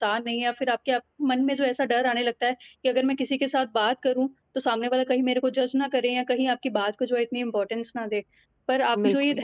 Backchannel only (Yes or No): Yes